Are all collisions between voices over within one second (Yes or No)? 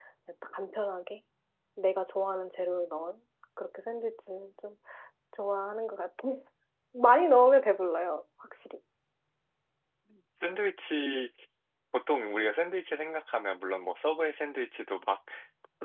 Yes